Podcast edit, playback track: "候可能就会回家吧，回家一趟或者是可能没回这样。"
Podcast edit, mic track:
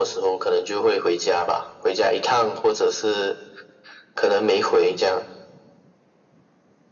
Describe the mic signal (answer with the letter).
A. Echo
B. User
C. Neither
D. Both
A